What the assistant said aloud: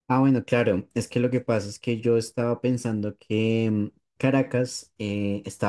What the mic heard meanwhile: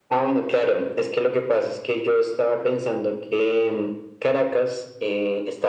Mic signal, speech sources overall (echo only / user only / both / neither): echo only